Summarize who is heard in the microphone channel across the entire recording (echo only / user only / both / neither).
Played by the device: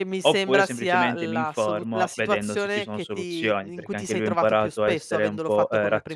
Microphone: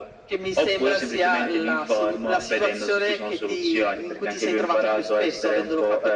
echo only